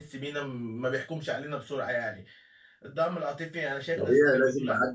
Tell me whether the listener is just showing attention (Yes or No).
No